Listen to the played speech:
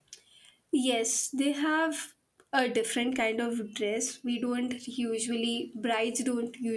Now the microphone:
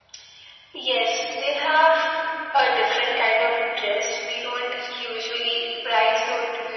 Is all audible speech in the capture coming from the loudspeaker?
Yes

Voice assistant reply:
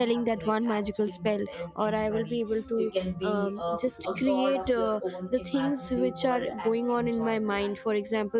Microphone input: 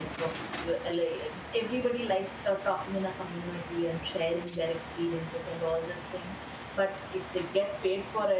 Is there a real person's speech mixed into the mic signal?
Yes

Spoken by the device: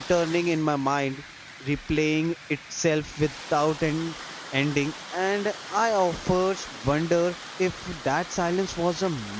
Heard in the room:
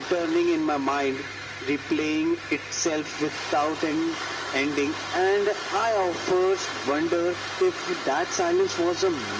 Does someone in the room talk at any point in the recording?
No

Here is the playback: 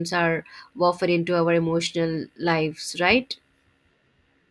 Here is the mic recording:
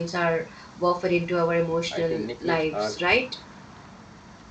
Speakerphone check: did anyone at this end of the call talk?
Yes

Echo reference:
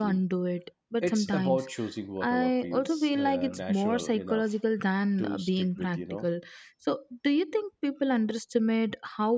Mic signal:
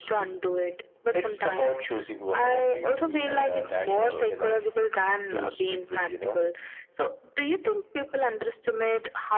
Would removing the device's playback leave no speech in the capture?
No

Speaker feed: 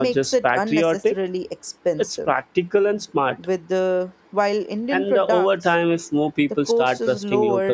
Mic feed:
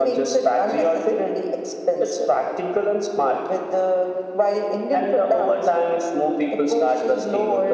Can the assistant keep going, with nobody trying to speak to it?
Yes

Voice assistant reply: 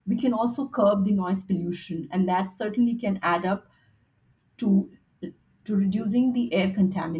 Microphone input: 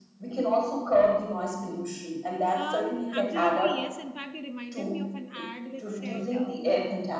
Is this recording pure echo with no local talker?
No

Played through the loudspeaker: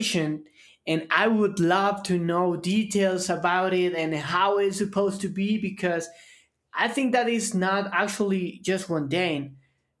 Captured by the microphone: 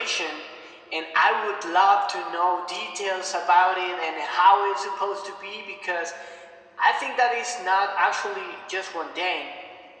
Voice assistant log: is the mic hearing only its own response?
Yes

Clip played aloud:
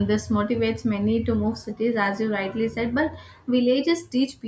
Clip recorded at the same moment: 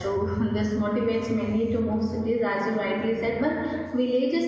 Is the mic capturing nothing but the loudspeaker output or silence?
Yes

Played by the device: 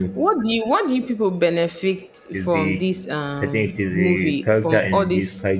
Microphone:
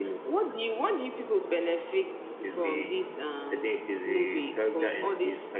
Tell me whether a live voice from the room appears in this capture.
No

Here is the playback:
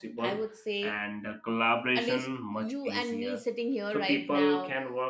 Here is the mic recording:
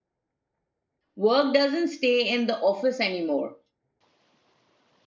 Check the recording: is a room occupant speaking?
Yes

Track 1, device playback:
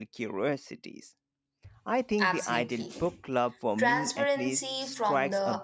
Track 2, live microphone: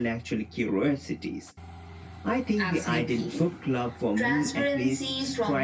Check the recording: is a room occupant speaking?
No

